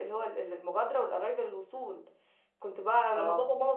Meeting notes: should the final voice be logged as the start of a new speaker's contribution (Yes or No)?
No